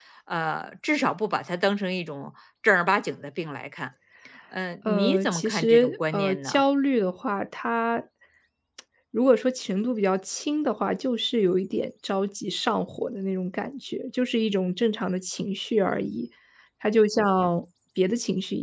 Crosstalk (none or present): present